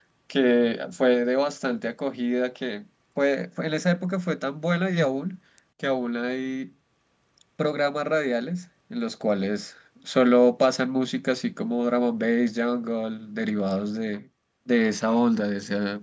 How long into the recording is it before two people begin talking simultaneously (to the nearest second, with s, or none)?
none